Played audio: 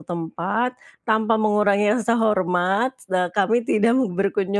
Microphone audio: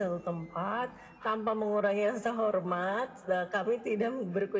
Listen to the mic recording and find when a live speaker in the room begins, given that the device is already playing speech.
none

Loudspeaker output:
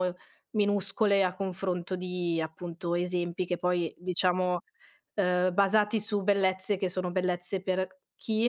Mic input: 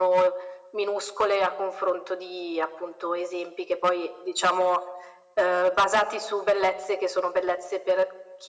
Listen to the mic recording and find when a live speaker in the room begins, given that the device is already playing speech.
none

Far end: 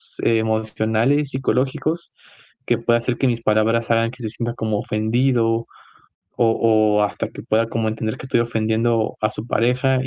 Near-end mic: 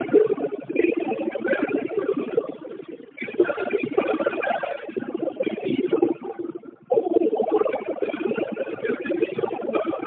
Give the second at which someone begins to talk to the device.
none

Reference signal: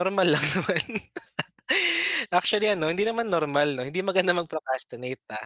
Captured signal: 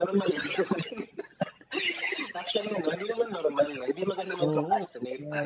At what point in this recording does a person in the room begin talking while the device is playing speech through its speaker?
4.4 s

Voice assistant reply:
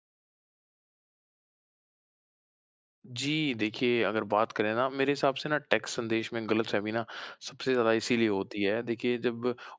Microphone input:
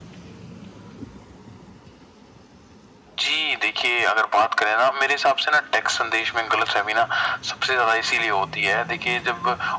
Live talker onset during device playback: none

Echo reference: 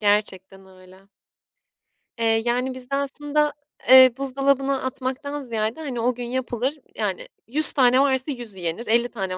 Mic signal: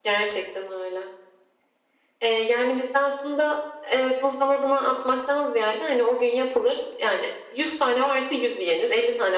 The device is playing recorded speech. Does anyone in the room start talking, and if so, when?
none

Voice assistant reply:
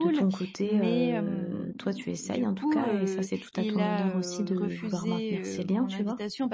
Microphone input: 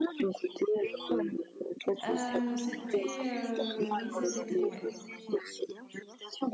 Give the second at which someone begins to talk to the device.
2.0 s

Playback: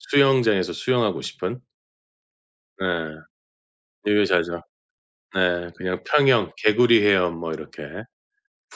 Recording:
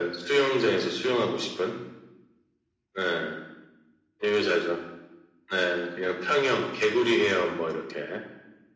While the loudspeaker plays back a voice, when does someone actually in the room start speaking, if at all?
none

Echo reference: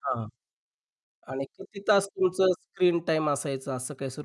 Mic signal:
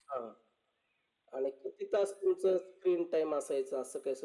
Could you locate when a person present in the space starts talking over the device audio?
none

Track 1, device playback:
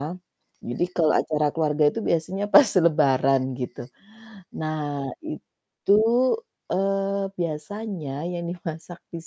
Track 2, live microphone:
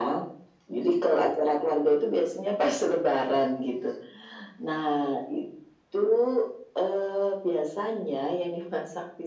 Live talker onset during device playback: none

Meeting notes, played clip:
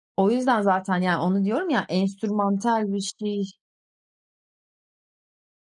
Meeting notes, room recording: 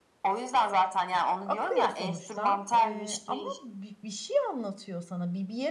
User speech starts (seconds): 1.4 s

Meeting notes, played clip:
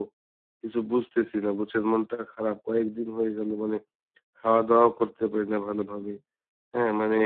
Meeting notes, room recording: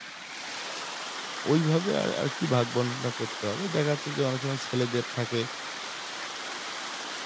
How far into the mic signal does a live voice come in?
1.5 s

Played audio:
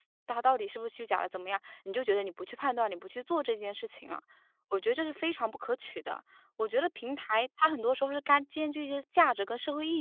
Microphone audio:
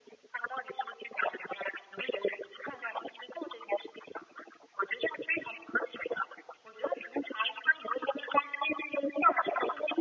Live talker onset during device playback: none

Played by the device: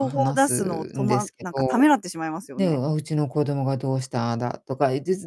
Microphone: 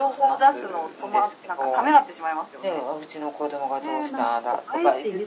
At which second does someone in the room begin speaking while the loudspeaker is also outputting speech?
3.8 s

